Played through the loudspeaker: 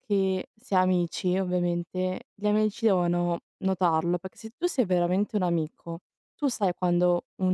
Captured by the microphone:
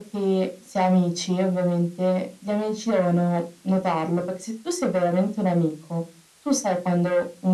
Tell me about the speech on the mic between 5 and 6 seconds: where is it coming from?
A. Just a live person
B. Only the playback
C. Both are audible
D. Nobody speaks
B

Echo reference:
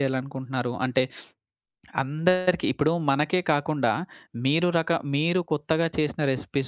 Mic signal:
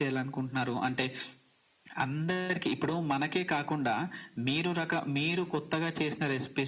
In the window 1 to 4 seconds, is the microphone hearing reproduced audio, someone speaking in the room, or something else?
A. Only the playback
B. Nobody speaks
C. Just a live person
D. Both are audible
A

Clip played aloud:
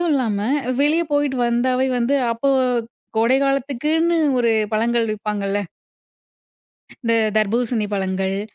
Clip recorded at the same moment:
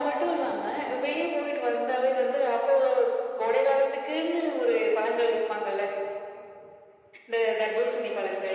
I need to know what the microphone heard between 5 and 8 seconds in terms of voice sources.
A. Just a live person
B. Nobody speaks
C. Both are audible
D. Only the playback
D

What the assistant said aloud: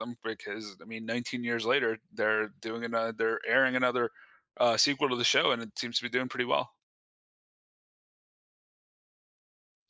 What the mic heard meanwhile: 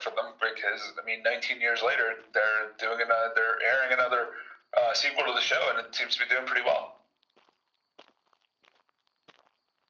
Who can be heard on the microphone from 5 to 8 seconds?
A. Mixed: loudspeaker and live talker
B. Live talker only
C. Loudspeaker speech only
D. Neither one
C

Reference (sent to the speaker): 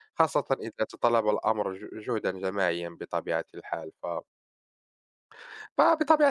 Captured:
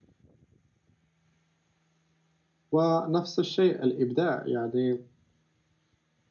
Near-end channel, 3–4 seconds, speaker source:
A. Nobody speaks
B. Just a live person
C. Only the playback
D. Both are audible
B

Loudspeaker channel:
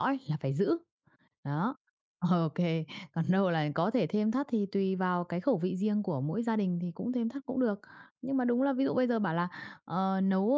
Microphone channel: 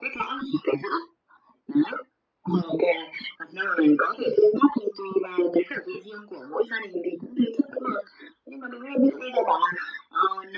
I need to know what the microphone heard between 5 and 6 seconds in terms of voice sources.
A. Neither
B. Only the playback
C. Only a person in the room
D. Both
B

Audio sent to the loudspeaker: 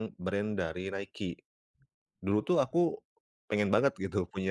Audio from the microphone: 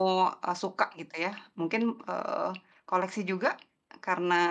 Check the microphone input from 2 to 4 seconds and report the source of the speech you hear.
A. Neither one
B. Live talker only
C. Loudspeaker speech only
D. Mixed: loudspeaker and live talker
B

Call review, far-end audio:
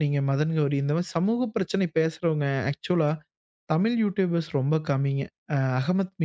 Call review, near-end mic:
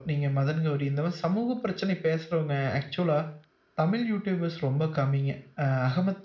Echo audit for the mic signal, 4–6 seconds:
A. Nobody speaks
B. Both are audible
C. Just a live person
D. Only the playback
D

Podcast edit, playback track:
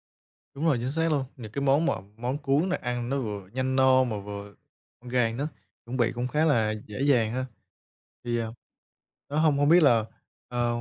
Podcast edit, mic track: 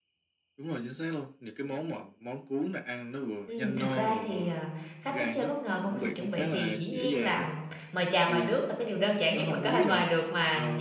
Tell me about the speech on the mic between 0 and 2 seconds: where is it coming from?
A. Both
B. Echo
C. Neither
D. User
B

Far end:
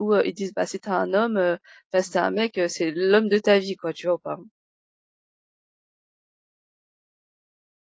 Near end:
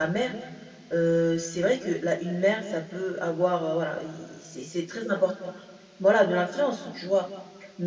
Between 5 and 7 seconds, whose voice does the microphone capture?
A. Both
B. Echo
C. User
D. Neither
C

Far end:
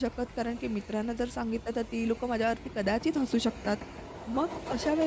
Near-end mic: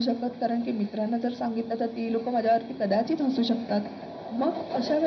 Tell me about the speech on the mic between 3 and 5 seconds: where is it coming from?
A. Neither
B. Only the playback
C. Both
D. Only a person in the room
B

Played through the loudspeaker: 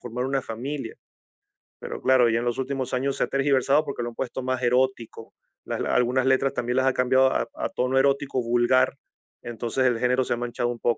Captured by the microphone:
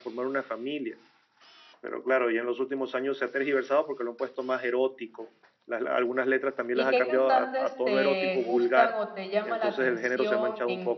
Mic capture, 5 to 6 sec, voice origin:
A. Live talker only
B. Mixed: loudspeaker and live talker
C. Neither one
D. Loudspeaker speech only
D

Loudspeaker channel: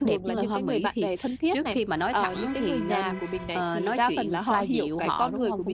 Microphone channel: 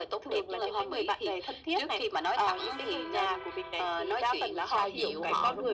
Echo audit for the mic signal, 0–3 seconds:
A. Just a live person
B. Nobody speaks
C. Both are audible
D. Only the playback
D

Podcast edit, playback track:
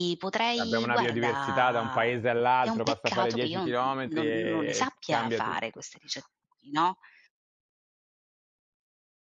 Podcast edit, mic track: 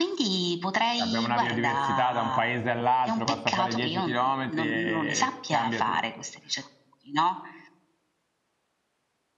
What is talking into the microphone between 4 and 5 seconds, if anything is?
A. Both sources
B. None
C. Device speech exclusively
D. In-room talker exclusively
C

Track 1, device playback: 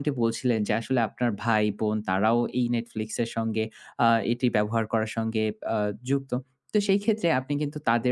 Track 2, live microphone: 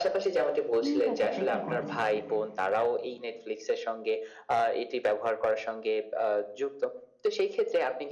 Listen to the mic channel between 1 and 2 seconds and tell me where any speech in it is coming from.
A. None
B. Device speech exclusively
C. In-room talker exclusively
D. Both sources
D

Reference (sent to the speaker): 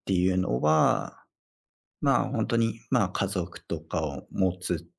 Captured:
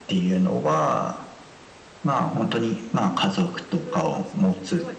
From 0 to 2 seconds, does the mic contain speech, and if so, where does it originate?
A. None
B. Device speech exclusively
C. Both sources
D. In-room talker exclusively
B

